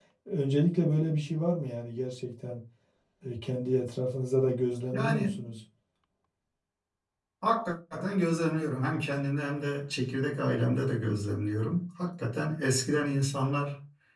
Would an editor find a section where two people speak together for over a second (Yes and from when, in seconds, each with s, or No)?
No